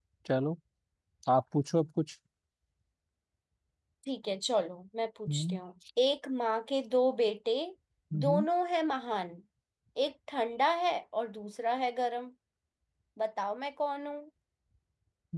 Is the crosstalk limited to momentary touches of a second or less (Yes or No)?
Yes